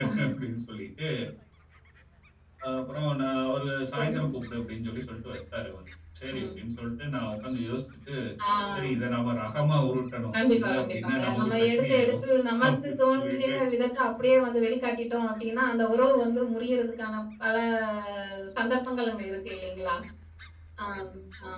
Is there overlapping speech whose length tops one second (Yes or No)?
Yes